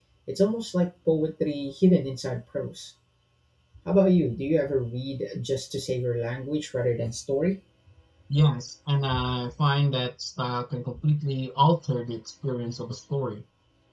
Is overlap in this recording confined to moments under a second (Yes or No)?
Yes